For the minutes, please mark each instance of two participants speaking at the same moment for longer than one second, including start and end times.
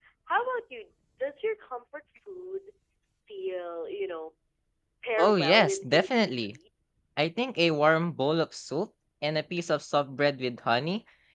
5.2-6.5

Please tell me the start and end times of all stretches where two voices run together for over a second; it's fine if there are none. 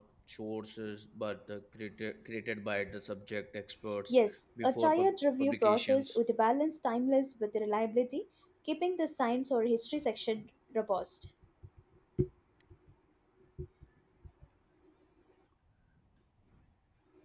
4.6-6.2

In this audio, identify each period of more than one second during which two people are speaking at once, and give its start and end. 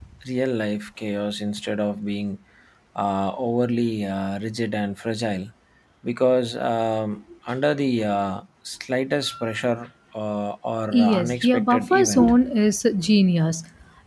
10.9-12.3

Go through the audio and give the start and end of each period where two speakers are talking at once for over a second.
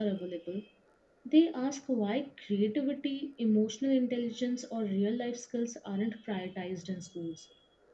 none

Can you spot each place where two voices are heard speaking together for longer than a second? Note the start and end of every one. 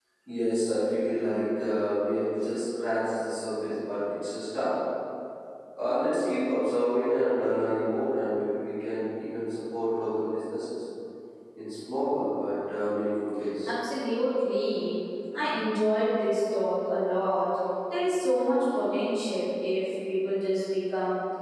none

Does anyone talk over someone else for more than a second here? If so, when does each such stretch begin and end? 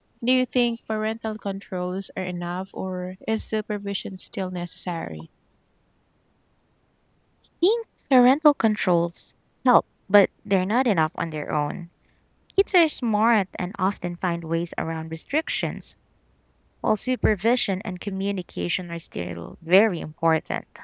none

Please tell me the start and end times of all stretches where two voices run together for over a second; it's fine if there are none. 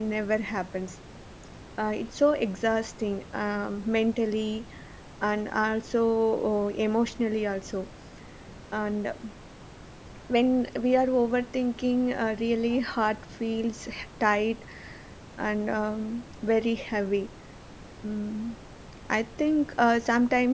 none

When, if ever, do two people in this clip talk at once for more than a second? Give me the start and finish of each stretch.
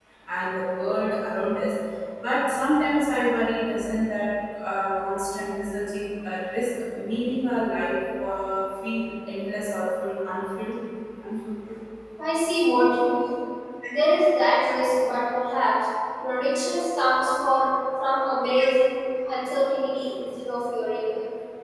none

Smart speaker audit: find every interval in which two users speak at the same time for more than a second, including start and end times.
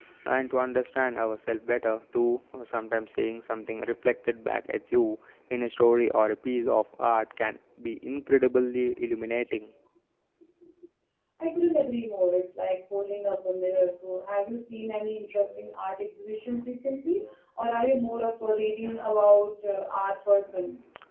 none

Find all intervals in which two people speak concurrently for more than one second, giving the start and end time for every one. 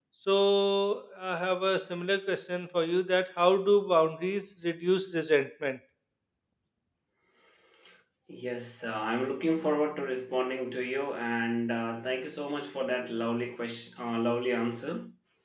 none

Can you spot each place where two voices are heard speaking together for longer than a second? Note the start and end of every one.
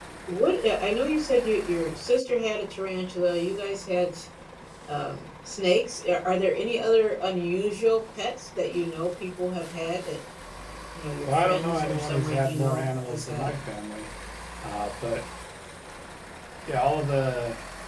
11.3-13.5

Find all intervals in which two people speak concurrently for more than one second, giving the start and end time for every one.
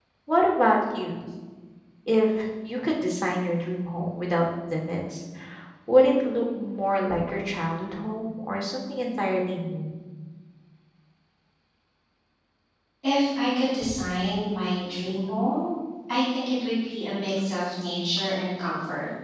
none

